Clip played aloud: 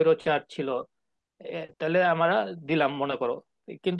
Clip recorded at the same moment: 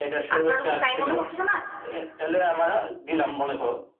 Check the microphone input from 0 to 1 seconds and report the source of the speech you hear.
both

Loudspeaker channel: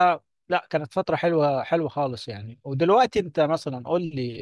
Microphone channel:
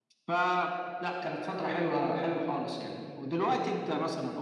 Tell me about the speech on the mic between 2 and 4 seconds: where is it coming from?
echo only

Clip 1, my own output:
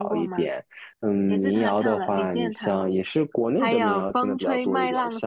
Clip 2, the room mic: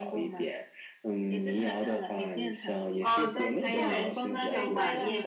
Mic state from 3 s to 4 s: both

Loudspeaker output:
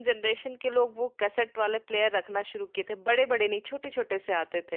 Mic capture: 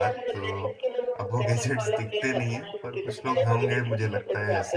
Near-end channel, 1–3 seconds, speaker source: both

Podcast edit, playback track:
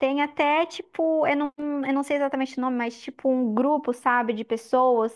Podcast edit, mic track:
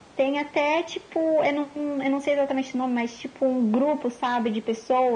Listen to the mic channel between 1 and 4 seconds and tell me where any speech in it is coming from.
echo only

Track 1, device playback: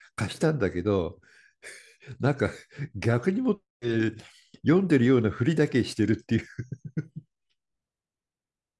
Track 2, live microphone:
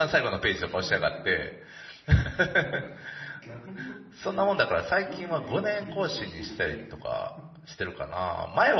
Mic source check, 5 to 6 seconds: both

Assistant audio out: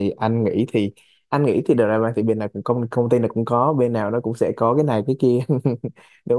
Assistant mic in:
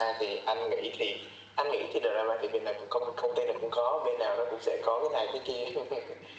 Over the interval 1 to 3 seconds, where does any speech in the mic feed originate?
echo only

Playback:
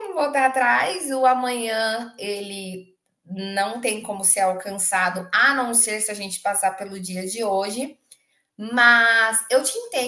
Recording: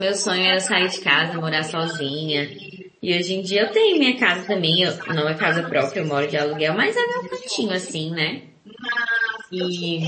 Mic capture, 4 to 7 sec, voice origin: both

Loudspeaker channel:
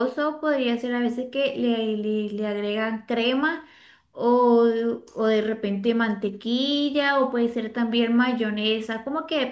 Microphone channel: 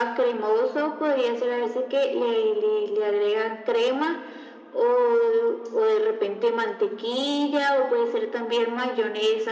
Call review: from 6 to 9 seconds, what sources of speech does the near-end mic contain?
echo only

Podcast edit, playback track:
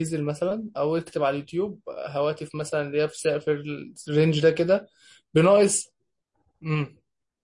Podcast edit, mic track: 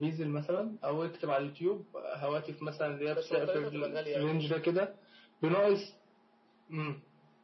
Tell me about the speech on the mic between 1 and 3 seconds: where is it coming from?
echo only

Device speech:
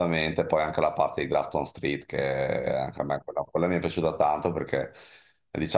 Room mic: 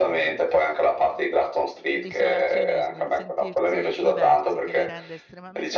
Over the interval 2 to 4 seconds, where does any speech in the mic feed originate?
both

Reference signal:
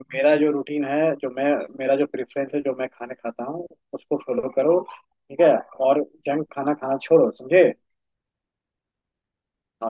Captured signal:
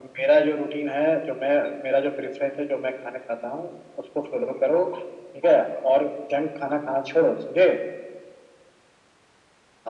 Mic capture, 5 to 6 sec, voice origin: echo only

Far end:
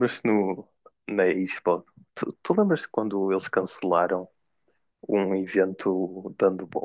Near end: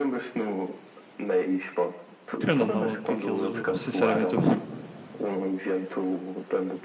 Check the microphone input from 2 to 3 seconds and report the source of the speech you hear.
both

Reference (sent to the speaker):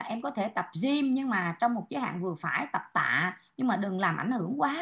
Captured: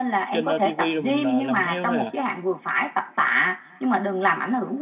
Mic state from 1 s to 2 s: both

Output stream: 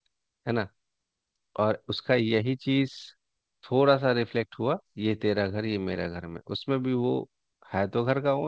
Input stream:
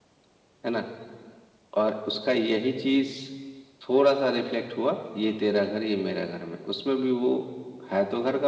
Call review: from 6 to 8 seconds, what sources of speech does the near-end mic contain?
echo only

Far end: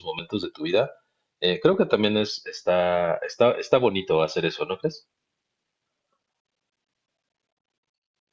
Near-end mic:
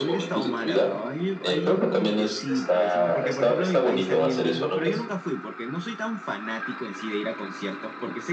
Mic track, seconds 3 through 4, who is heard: both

